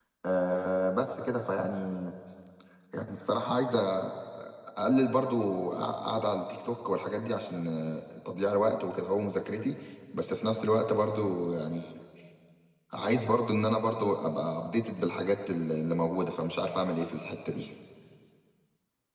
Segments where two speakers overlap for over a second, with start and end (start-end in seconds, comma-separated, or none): none